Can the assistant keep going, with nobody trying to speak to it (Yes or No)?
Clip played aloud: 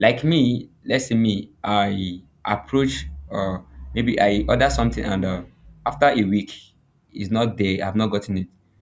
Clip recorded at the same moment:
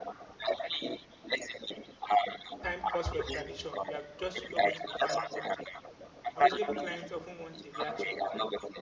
No